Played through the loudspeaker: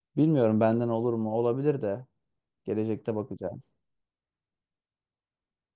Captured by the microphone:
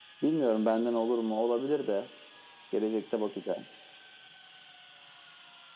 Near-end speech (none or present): none